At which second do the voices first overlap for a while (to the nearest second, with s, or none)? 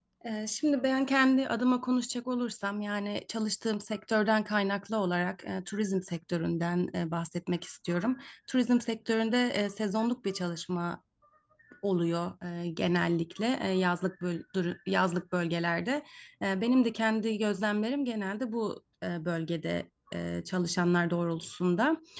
none